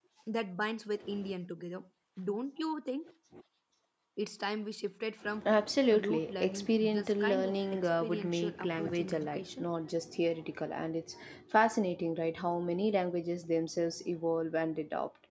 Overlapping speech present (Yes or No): Yes